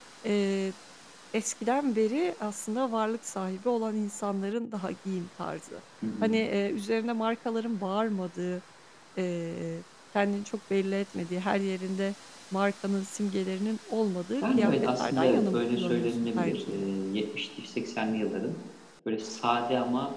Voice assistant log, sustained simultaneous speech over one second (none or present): present